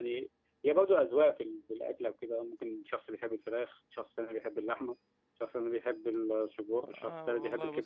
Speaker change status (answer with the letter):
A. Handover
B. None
A